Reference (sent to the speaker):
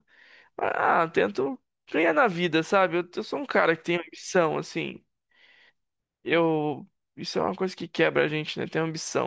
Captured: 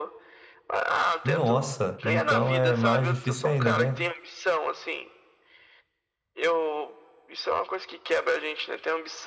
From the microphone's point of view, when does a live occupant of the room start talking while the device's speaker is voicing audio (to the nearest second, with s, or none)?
1 s